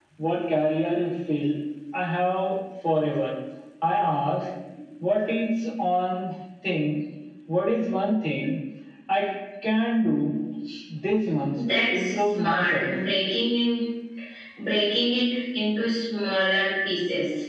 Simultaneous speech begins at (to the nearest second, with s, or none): 12 s